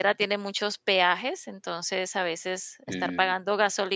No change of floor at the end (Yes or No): Yes